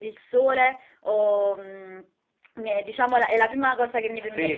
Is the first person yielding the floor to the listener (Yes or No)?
Yes